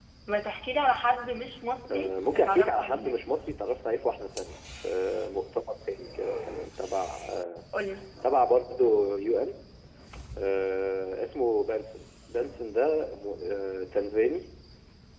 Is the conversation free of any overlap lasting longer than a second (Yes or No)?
No